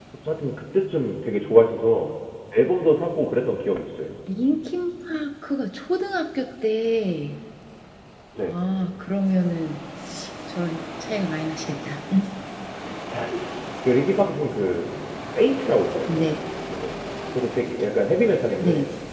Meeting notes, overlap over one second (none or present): none